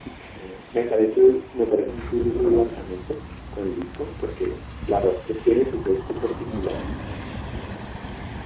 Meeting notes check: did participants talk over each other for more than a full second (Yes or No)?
Yes